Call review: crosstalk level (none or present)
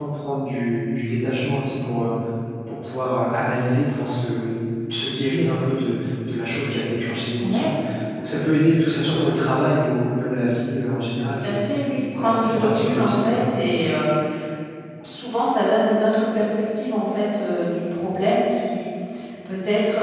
present